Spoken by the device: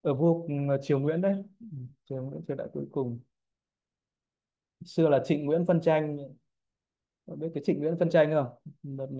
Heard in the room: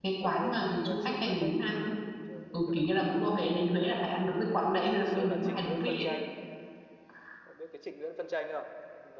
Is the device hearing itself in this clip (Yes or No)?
Yes